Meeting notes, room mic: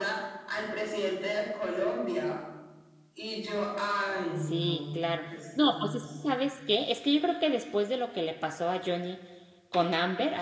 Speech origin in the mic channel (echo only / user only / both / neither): both